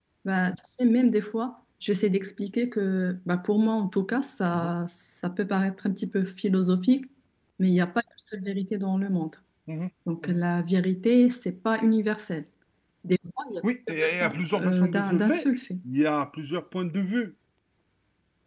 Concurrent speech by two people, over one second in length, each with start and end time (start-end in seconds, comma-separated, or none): 13.6-15.4